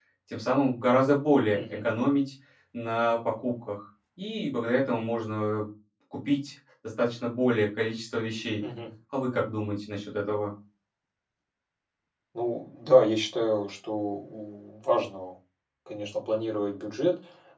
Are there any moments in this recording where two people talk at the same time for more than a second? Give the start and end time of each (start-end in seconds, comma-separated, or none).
none